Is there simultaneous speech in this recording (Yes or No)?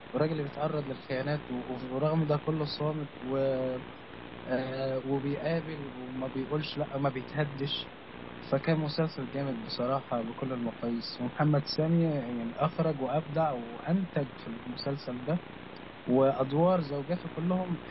No